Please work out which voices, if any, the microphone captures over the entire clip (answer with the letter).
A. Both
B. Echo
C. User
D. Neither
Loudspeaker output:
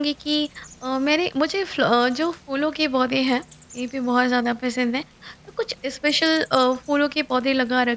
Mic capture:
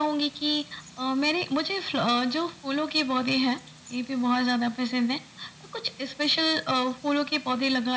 B